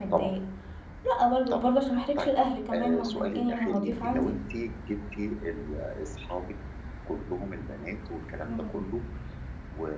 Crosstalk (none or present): present